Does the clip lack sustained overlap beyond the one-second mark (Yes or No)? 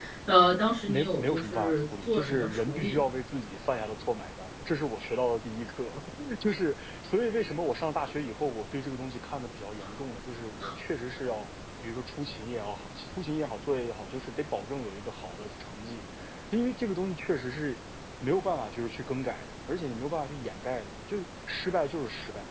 No